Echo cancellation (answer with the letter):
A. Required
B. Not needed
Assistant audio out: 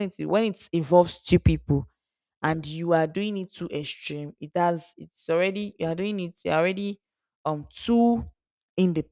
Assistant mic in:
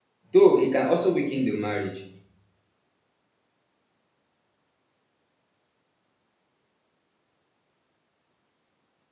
B